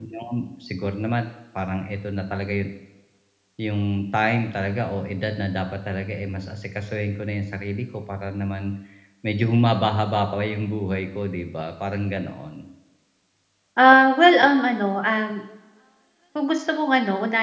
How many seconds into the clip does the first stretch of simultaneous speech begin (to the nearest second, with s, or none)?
none